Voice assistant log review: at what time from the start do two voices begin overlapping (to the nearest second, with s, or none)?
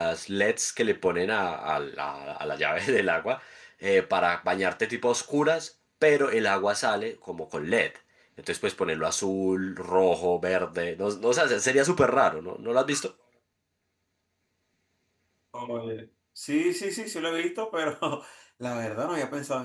none